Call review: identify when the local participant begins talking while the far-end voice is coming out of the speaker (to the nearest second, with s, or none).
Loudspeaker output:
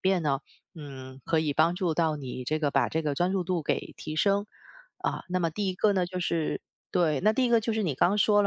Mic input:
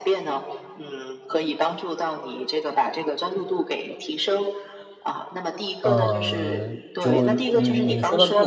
6 s